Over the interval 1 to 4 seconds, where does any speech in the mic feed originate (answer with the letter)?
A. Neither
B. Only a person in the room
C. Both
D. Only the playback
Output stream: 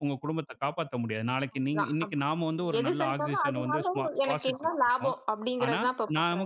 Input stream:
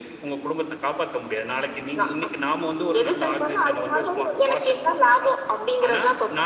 D